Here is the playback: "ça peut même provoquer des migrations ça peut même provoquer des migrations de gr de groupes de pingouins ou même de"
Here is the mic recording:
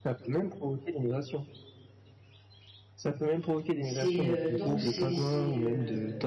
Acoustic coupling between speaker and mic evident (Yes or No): Yes